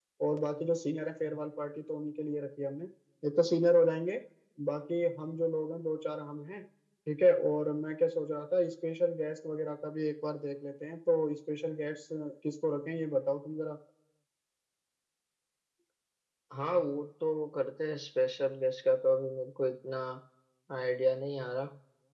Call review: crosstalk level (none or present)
none